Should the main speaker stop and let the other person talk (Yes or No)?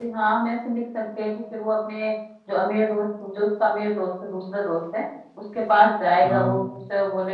No